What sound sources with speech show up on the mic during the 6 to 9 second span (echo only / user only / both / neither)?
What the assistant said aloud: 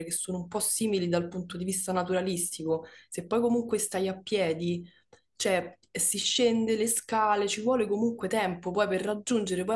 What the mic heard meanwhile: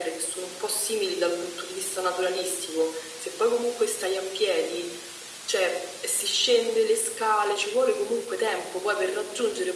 echo only